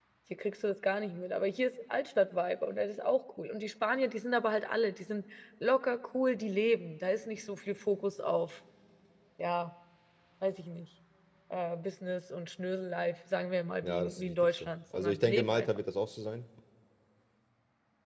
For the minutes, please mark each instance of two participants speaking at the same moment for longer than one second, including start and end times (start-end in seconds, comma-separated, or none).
13.8-15.7